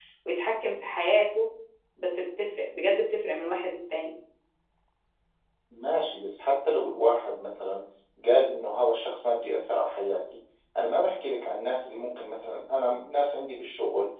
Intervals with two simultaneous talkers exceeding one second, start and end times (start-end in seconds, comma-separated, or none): none